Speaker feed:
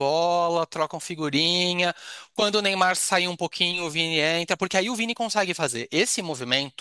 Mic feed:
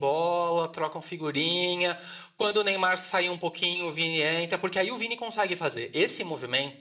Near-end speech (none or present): none